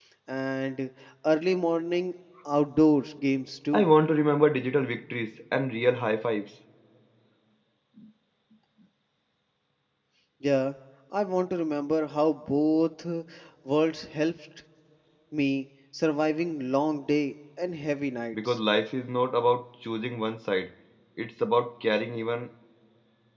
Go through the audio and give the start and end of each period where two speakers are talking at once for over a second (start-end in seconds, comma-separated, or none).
none